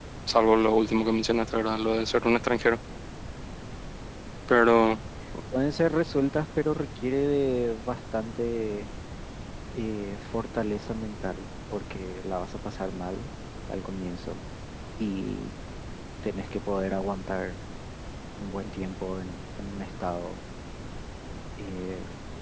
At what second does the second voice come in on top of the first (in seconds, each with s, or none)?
none